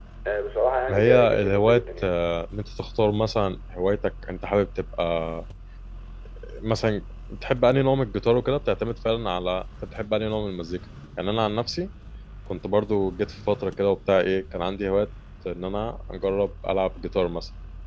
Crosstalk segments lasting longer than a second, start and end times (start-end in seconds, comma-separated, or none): 0.9-2.1